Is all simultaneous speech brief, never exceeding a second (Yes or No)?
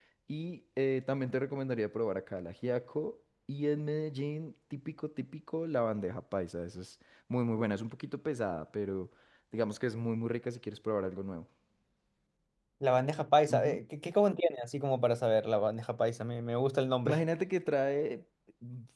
Yes